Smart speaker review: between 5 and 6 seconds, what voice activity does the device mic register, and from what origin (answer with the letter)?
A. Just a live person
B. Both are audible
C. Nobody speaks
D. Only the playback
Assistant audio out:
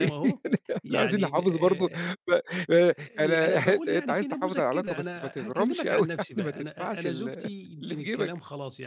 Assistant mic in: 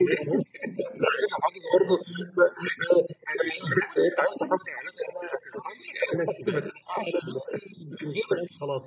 D